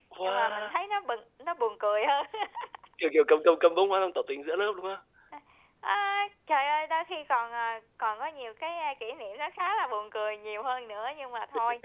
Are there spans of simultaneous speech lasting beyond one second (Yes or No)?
No